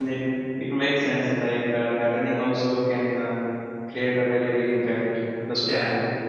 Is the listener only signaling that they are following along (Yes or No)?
No